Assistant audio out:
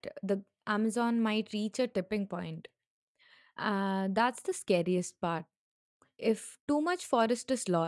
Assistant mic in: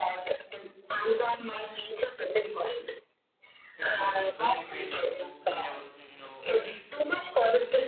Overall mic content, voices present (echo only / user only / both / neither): both